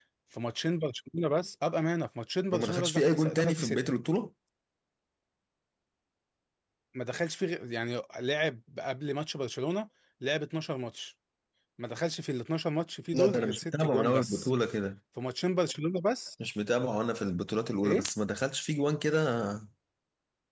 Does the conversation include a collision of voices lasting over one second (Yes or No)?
Yes